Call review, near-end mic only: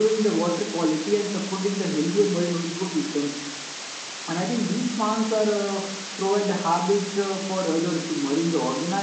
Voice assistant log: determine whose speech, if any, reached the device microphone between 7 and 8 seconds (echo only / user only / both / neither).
echo only